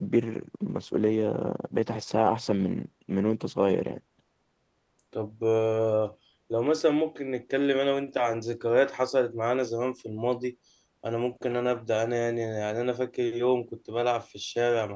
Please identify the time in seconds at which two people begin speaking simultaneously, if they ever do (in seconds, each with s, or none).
none